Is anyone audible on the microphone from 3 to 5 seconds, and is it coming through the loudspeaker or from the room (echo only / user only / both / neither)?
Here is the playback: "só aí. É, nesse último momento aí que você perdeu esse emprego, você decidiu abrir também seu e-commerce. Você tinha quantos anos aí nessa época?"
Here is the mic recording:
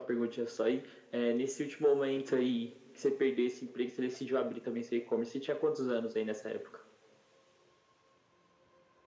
echo only